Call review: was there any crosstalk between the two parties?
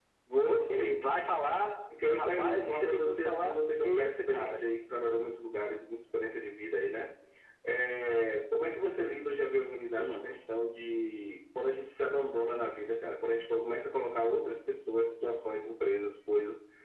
Yes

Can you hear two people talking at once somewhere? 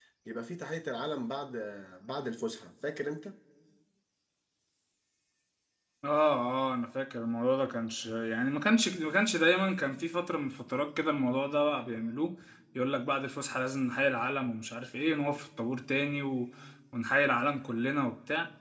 No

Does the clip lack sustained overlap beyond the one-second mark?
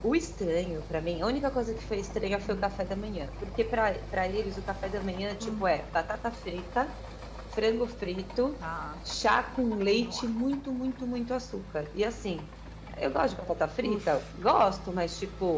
Yes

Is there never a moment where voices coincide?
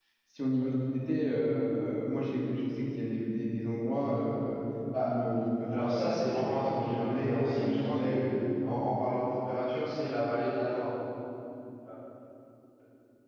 No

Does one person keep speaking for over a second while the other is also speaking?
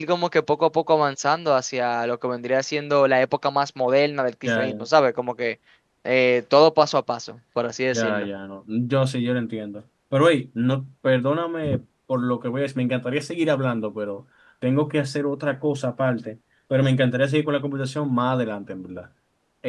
No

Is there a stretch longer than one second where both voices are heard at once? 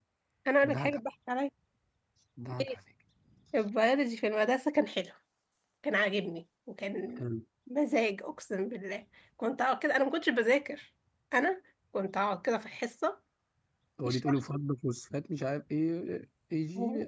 No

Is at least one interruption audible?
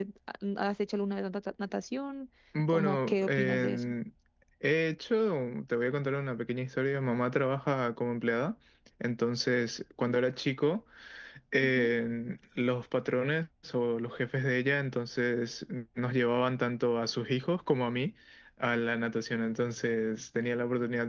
Yes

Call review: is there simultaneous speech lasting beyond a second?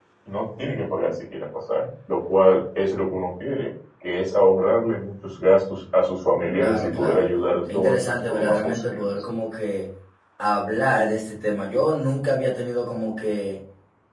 Yes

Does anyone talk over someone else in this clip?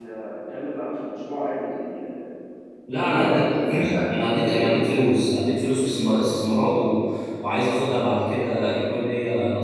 Yes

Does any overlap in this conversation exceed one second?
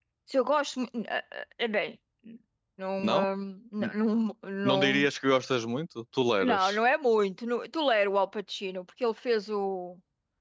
No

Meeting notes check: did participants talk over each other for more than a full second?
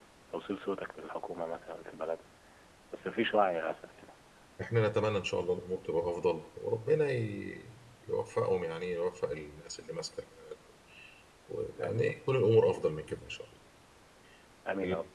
No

